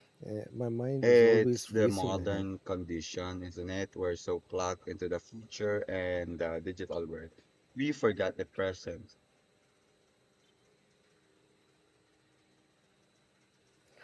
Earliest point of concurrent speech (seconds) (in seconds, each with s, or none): 1.0 s